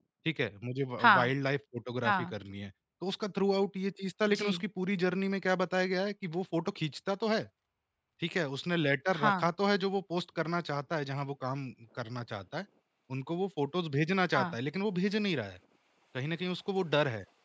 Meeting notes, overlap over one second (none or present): none